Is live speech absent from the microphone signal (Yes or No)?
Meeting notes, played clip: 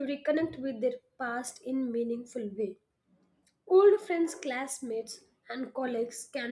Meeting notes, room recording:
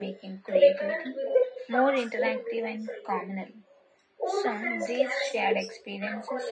No